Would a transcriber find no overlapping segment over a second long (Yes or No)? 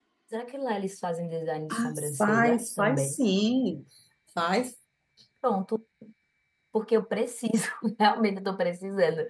No